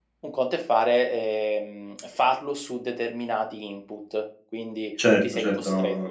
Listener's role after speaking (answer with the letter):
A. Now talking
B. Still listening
A